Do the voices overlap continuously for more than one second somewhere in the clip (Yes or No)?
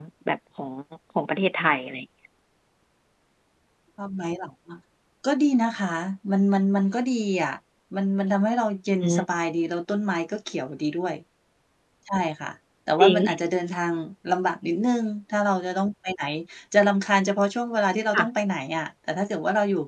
No